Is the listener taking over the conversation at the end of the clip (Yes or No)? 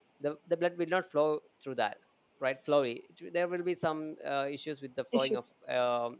No